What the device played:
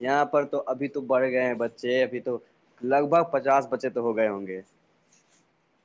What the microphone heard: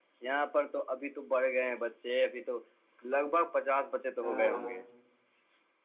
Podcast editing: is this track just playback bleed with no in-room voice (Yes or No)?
No